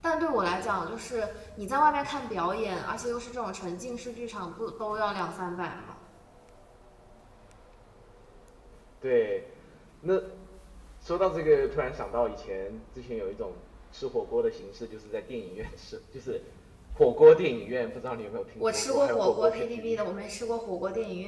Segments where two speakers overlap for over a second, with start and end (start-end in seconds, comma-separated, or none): 18.6-20.0